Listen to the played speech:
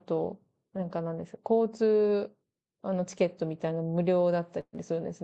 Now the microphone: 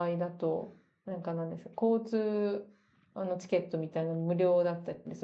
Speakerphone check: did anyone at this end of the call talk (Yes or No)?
No